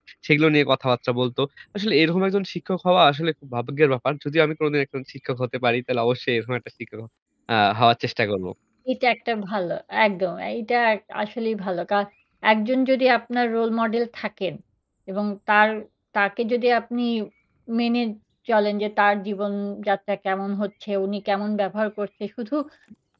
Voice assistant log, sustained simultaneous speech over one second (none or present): none